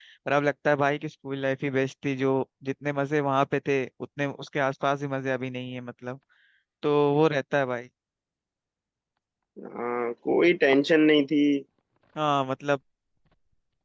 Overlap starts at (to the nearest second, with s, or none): none